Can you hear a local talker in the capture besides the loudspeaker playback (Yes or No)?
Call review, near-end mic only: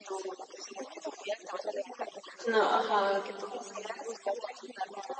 Yes